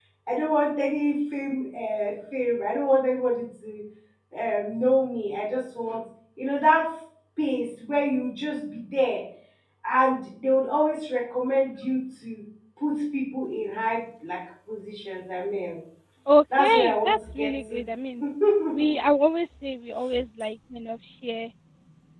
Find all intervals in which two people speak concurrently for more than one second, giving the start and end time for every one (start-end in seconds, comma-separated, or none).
16.6-17.8